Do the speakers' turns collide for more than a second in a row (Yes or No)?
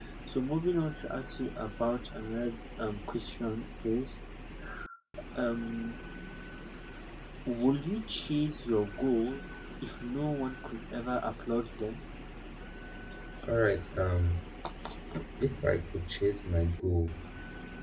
No